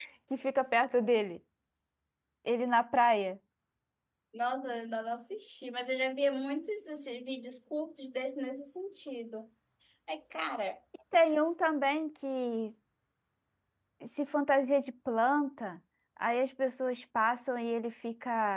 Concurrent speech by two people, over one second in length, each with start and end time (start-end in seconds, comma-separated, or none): none